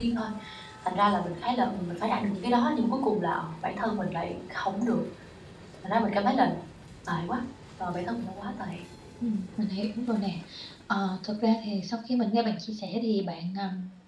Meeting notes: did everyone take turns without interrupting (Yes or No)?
Yes